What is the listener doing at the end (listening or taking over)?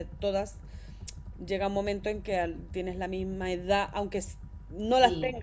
listening